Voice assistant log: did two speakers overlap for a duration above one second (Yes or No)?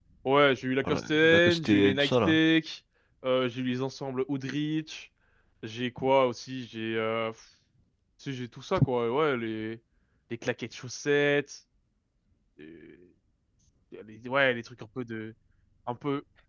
Yes